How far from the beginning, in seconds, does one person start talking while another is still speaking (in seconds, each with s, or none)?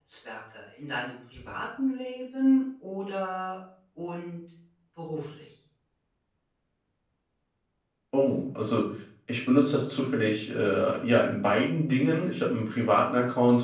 none